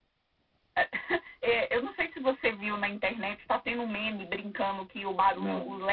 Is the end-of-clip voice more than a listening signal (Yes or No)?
No